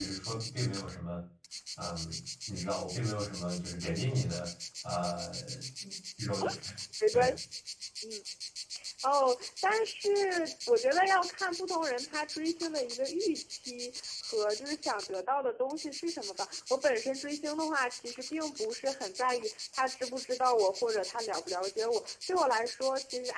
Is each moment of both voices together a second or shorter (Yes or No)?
Yes